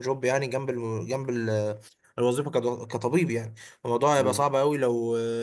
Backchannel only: Yes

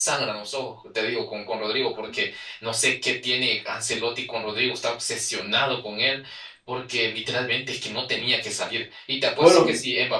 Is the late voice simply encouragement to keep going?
Yes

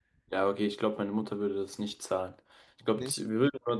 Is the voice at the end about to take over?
No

